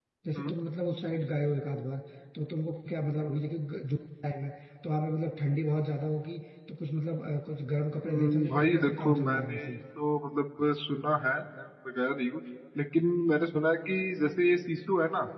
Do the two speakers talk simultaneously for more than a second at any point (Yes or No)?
Yes